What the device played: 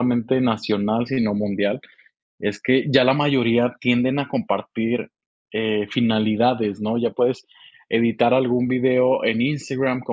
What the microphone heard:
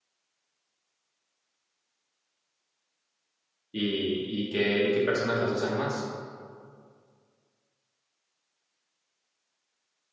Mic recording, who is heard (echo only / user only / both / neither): user only